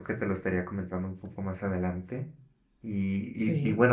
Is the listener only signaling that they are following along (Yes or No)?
Yes